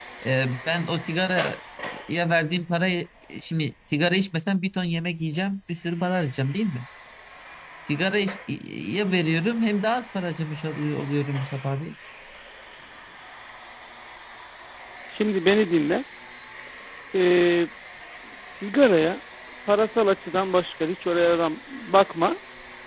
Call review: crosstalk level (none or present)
none